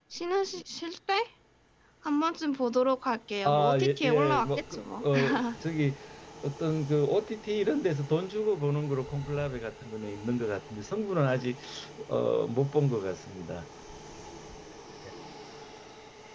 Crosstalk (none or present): present